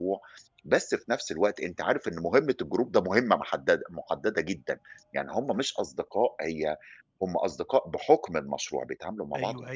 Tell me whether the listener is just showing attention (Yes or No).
No